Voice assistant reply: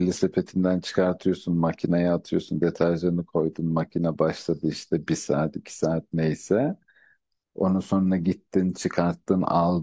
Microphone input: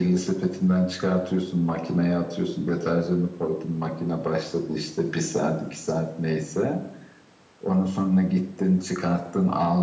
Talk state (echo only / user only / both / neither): echo only